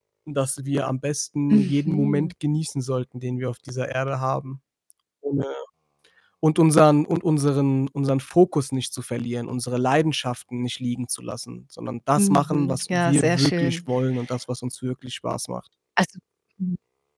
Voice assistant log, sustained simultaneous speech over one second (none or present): present